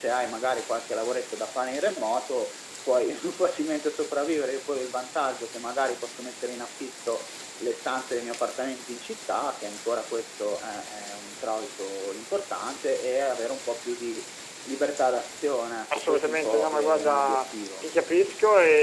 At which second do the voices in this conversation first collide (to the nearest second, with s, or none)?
16 s